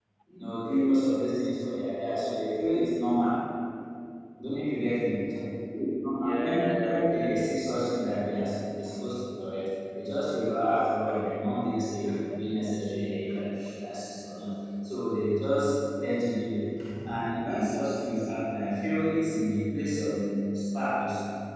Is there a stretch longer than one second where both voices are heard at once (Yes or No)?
Yes